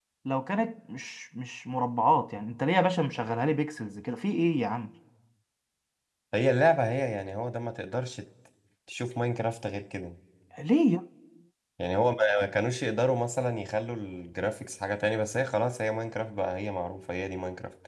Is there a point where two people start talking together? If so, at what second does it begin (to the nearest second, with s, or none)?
none